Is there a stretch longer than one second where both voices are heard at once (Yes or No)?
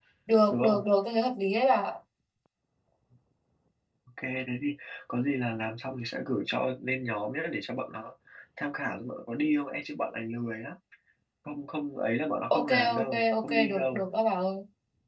Yes